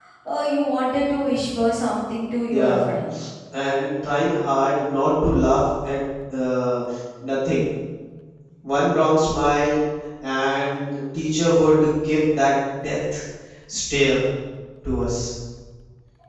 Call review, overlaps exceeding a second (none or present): none